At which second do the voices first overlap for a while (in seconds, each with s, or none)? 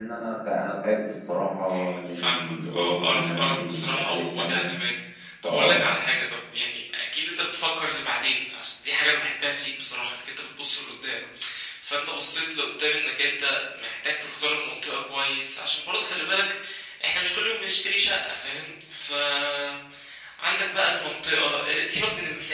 1.7 s